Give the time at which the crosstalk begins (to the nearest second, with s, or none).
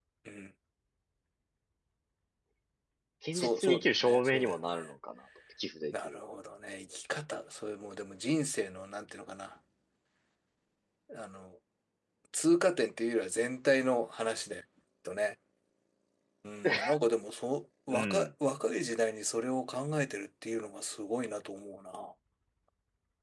3 s